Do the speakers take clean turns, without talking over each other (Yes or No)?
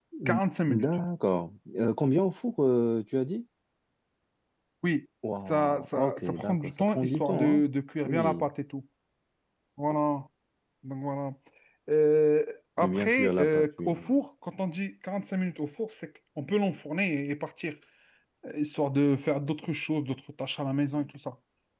No